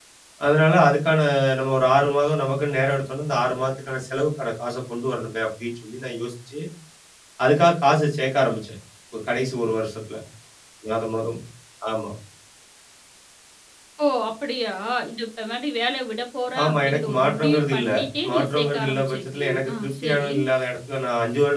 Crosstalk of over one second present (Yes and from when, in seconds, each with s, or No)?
Yes, from 16.6 s